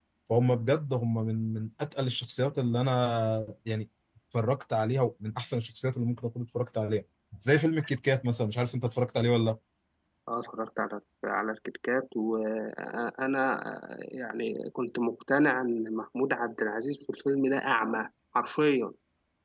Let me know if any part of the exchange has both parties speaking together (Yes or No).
No